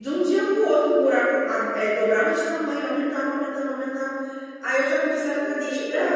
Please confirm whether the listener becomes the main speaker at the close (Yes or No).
No